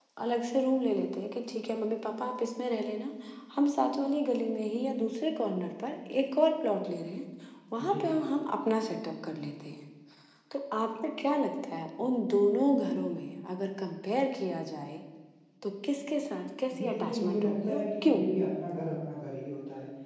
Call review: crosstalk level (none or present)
present